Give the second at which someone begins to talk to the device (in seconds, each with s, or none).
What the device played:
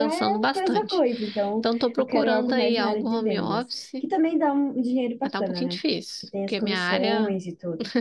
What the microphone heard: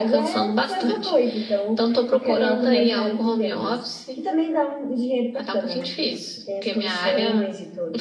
none